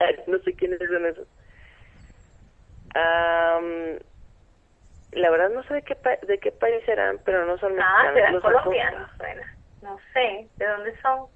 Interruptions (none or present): present